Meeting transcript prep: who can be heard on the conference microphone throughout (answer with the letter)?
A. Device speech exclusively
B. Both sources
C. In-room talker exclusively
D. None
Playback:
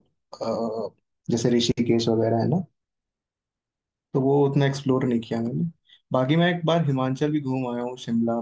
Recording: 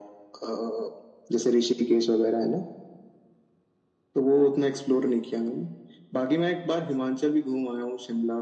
A